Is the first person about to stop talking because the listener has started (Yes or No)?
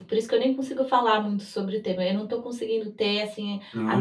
No